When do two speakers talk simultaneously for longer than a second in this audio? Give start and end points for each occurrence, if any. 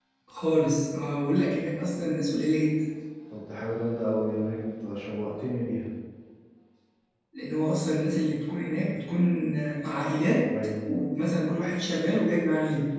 none

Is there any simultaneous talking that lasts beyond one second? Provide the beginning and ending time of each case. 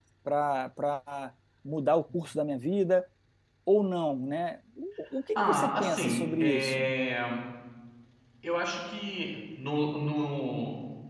5.3-6.9

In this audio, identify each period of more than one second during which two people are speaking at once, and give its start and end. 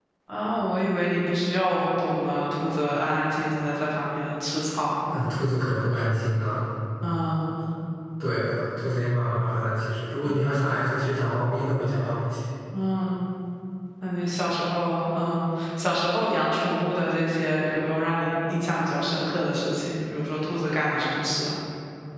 none

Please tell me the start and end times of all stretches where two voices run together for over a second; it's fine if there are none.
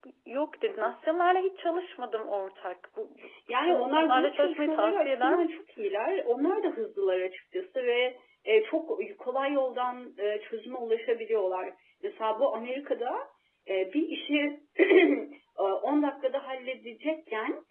3.6-5.5

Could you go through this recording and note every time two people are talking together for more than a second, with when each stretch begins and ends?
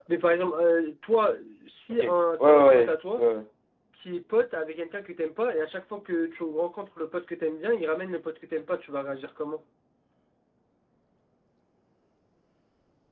1.9-3.2

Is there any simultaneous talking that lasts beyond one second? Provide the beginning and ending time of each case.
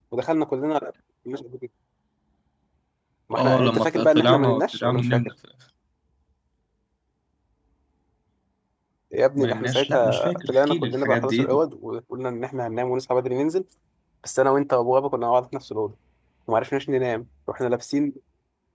3.4-5.3, 9.4-11.6

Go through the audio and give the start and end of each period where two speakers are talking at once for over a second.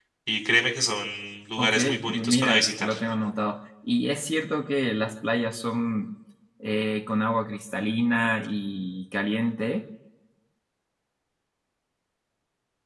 1.6-2.9

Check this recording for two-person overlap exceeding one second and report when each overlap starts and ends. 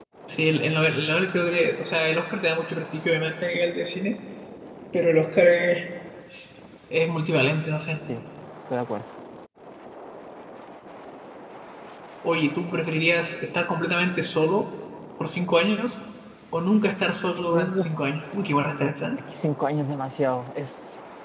none

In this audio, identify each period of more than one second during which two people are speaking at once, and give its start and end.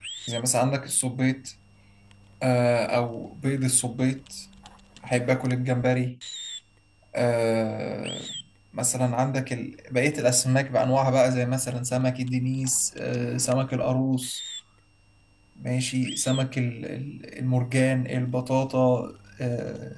none

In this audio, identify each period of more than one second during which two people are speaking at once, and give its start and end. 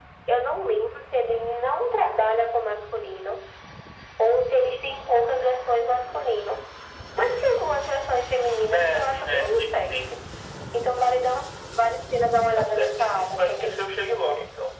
8.7-10.1, 12.6-13.8

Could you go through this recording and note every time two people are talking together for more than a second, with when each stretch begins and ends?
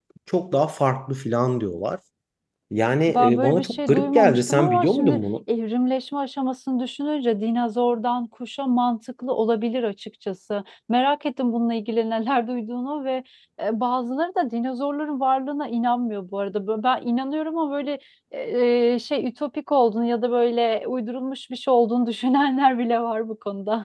3.1-5.2

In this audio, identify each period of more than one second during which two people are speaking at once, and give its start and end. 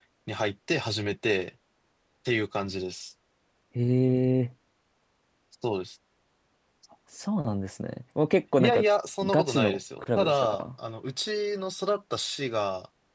9.2-10.6

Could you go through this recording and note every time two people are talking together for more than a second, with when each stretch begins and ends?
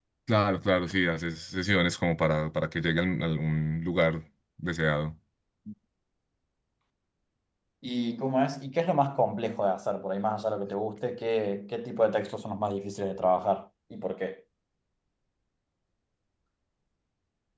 none

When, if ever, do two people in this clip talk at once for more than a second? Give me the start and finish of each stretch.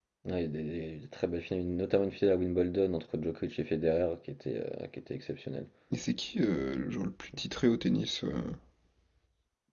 none

